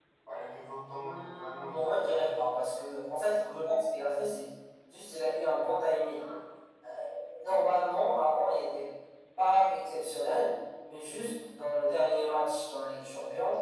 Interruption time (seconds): 1.0 s

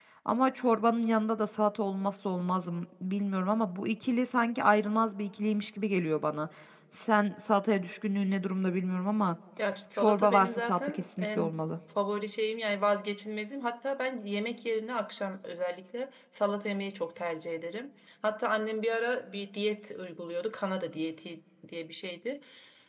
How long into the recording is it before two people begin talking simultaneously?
9.9 s

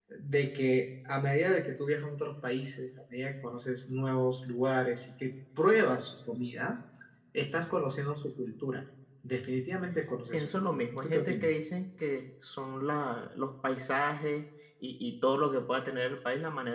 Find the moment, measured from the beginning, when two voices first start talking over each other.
10.3 s

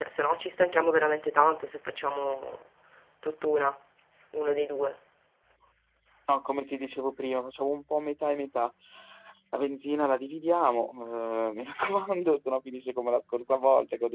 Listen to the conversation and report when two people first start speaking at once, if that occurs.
none

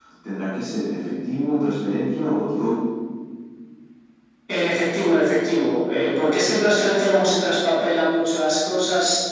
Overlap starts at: none

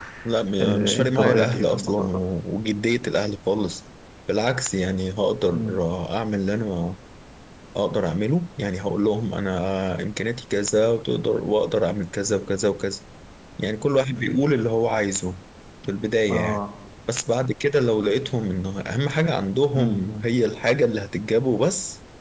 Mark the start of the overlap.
0.6 s

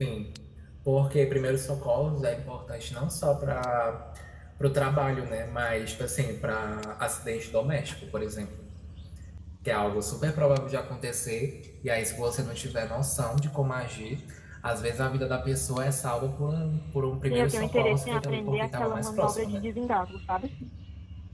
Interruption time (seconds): 17.2 s

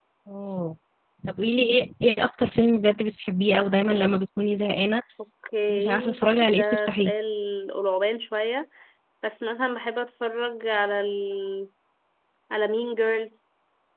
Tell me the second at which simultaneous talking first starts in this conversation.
5.7 s

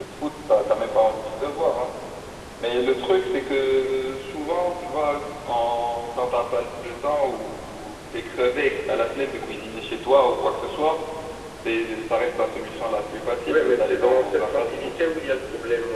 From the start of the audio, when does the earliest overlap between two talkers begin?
13.5 s

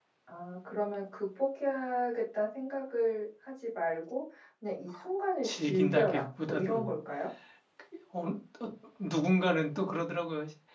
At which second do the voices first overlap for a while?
5.4 s

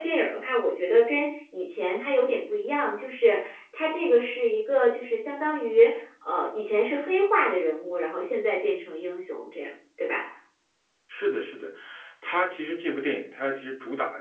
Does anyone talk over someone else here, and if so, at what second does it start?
none

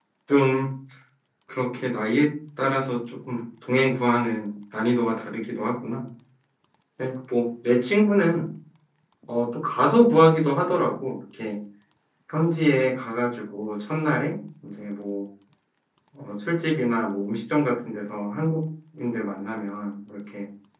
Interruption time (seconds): none

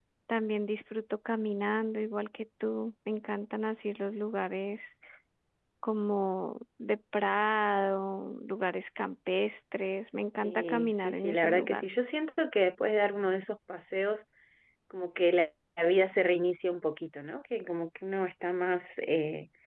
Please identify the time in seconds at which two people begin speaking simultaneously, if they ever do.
10.4 s

